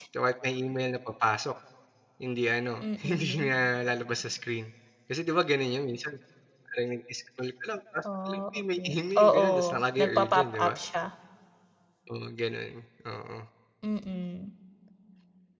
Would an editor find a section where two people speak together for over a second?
Yes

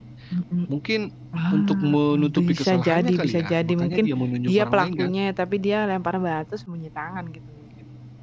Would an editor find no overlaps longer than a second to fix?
No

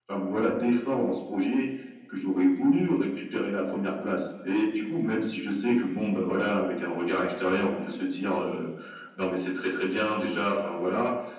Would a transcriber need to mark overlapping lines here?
No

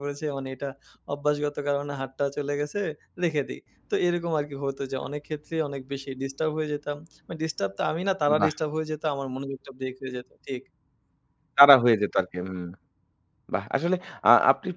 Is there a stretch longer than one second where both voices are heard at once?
No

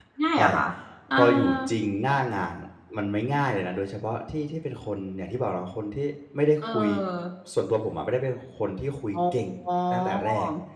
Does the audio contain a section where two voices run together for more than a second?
No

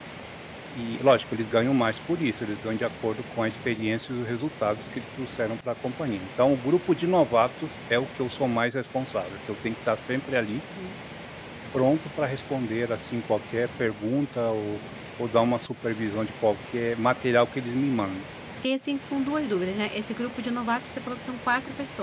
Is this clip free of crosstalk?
Yes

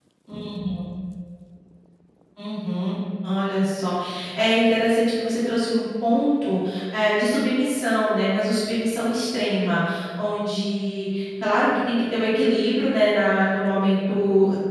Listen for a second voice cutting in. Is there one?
No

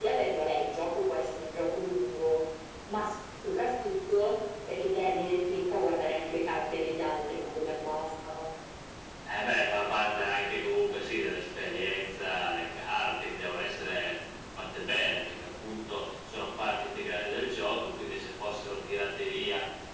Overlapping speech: No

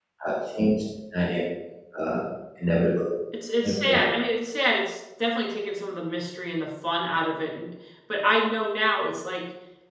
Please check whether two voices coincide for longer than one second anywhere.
No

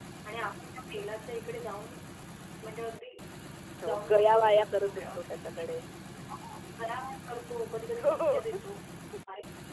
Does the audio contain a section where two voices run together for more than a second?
Yes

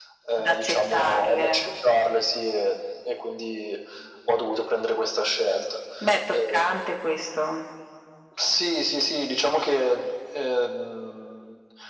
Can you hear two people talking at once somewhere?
Yes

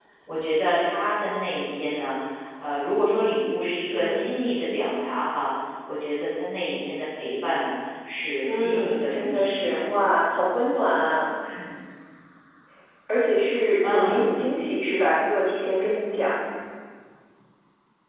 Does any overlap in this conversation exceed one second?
Yes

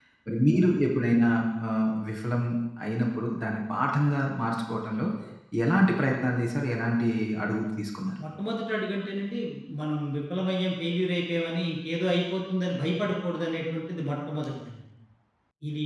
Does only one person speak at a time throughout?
Yes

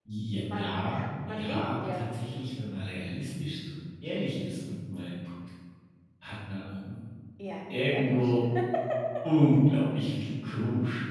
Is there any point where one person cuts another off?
Yes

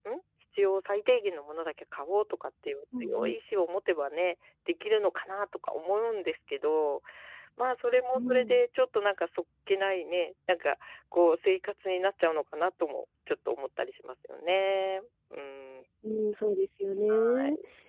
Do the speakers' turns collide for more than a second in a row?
No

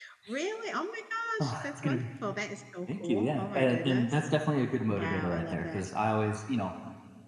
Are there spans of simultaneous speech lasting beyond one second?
Yes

